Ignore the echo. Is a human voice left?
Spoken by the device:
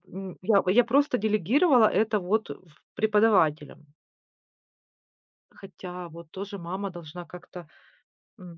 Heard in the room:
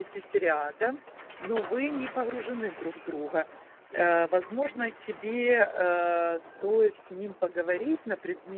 Yes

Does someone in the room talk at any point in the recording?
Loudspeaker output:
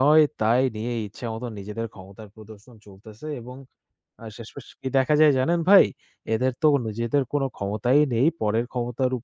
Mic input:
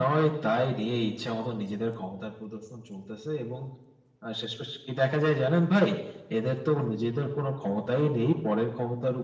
No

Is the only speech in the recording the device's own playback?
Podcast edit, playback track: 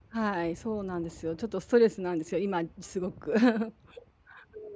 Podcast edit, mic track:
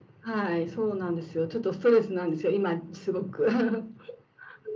Yes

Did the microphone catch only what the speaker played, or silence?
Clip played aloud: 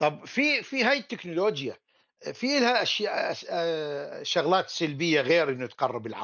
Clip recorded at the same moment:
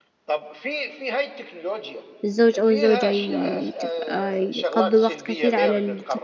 No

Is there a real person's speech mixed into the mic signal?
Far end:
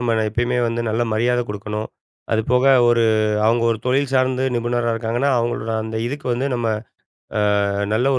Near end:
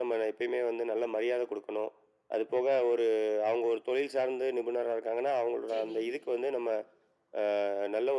Yes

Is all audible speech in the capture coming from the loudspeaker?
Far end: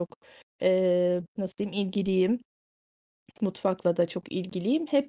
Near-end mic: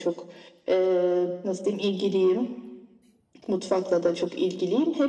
Yes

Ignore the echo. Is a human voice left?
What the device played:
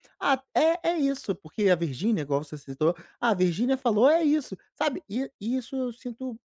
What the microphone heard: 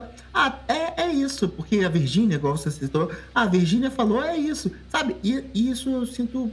No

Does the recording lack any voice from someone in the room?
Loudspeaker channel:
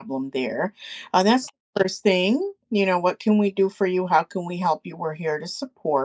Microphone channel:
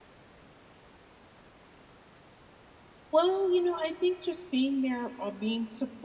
No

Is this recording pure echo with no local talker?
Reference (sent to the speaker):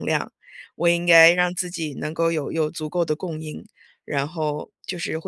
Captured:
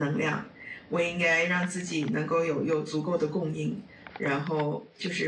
Yes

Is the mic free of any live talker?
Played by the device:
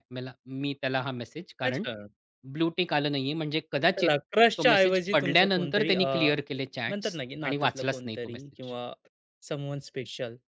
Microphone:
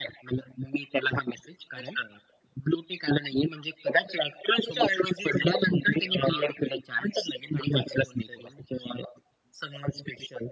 Yes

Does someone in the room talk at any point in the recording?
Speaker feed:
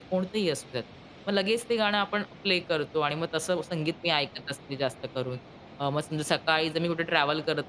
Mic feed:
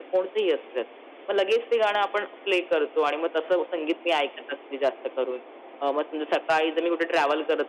No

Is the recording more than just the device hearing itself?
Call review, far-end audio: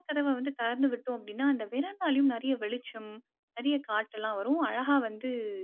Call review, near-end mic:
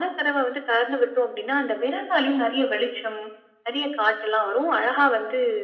No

